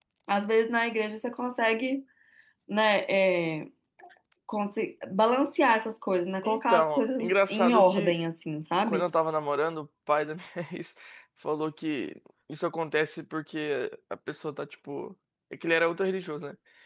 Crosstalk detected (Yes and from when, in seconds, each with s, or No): Yes, from 6.4 s